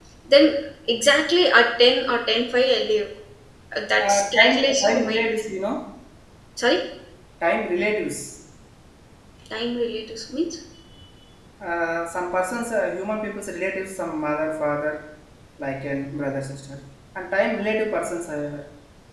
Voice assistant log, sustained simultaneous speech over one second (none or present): present